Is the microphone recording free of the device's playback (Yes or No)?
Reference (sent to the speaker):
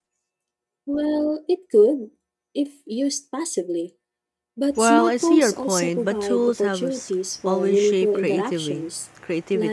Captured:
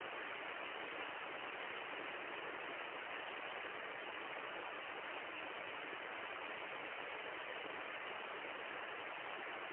Yes